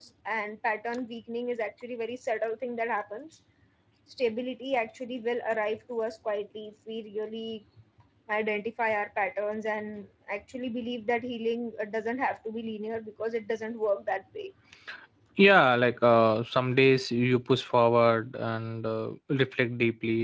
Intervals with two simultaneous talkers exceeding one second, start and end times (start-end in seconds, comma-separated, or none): none